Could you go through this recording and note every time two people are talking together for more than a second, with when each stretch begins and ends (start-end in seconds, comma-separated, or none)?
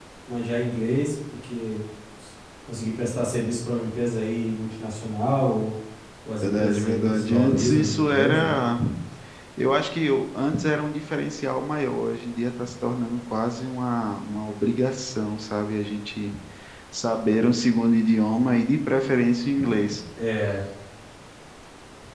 6.4-8.6